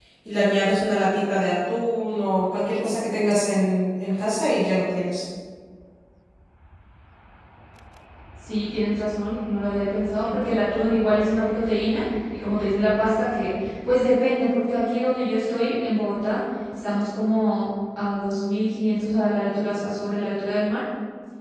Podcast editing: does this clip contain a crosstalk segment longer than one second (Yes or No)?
No